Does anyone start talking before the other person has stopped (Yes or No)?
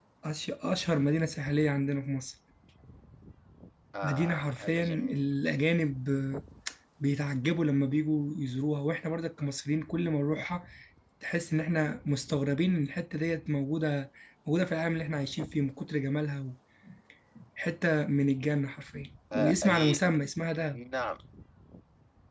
Yes